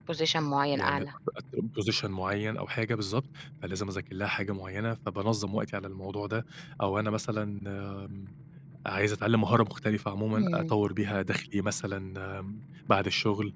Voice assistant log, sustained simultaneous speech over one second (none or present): none